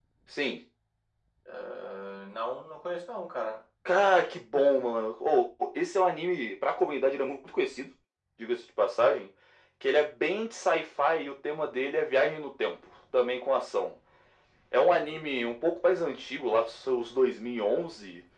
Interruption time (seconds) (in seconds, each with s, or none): none